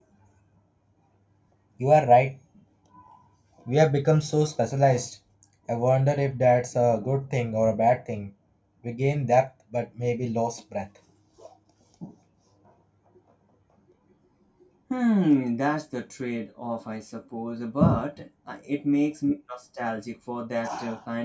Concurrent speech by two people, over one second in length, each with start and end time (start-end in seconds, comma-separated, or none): none